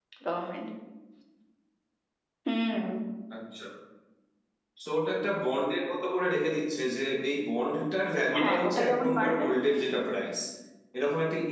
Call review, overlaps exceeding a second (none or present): present